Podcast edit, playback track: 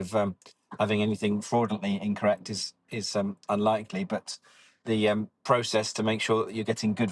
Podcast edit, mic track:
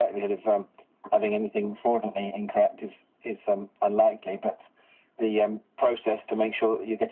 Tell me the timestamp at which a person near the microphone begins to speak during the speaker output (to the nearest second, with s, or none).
none